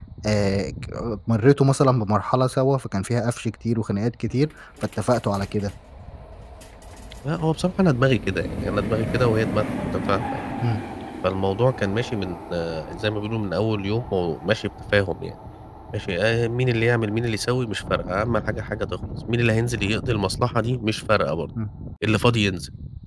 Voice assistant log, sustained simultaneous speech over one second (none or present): none